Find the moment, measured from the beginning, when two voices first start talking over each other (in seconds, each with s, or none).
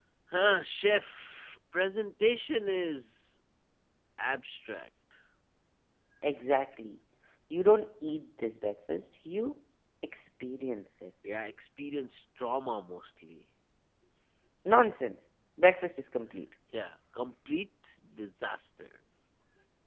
none